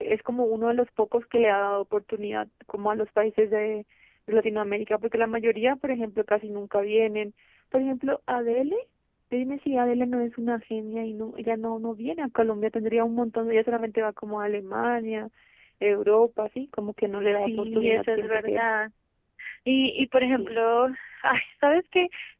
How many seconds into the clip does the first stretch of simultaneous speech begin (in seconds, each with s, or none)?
17.2 s